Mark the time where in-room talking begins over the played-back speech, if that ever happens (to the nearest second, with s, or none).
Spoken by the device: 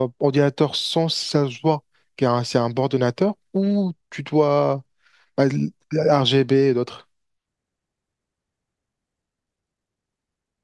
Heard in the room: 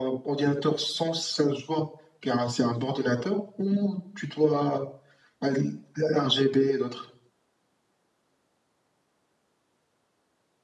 none